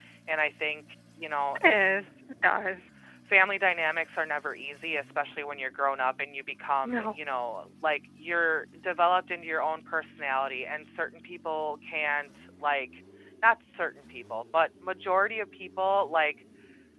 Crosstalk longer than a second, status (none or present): none